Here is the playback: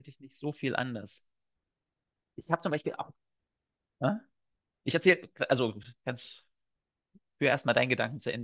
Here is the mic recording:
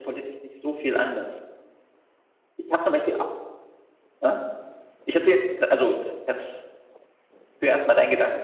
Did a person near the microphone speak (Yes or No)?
No